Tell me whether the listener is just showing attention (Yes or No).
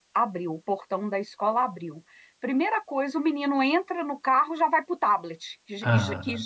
Yes